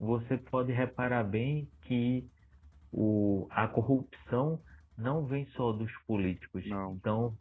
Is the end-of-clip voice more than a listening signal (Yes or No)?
No